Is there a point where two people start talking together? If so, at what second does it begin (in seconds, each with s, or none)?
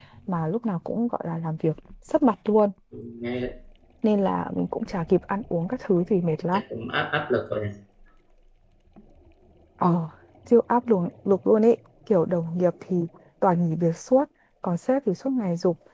none